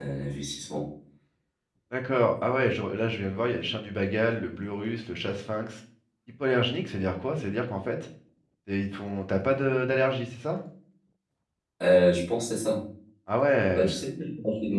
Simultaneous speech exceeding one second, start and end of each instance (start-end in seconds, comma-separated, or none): none